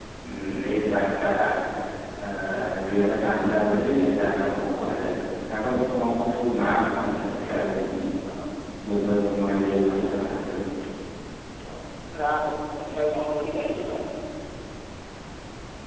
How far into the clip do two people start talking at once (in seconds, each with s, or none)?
none